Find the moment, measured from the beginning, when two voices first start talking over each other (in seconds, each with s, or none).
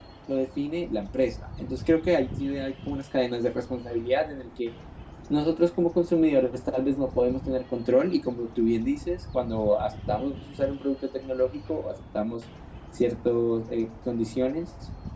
none